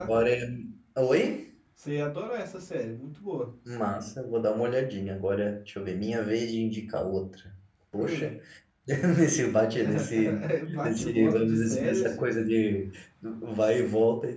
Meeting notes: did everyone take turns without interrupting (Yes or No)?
No